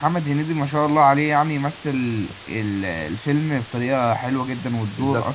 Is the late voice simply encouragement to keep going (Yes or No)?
No